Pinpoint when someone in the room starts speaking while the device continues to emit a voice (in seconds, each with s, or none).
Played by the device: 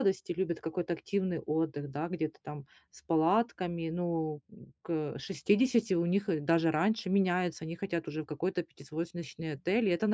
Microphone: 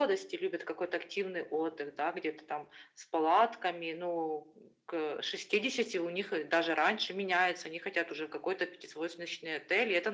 none